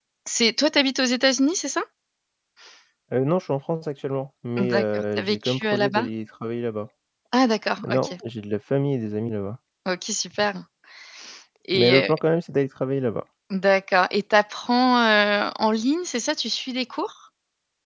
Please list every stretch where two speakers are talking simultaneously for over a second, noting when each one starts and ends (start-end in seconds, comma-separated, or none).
4.6-6.1